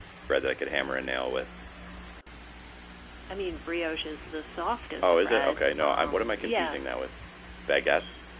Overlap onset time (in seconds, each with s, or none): 5.0 s